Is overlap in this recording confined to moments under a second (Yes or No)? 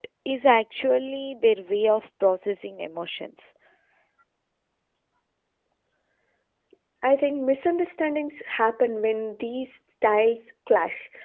Yes